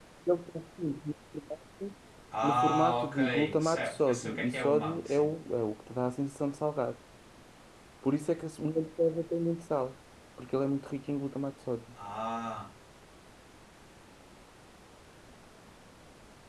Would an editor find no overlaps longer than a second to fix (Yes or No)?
No